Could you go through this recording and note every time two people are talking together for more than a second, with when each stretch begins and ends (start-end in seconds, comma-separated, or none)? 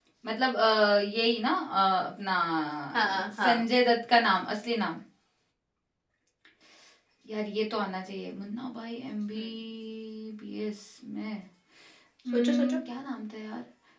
none